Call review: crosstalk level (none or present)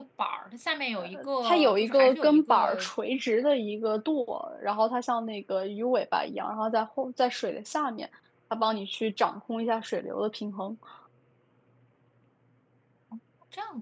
present